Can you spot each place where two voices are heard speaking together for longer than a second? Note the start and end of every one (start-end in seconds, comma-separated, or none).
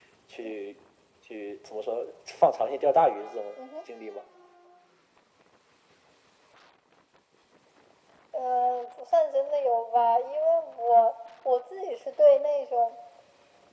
none